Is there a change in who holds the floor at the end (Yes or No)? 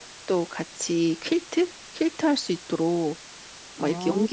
No